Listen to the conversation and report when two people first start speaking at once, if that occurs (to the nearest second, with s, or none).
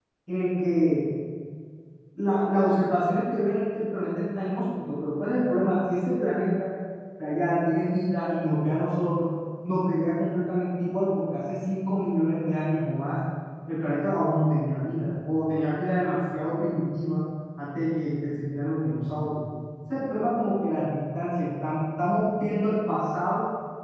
none